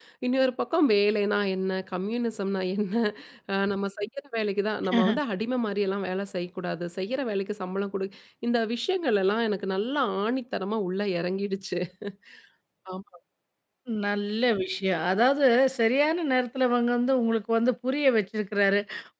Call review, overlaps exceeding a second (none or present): none